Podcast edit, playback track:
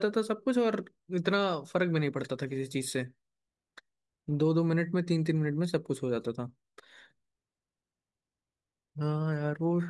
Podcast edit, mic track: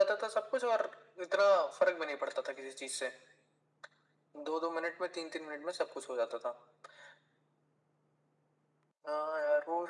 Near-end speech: none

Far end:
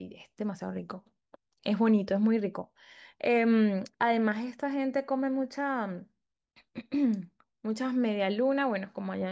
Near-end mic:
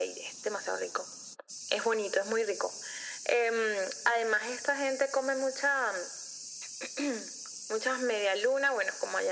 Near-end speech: none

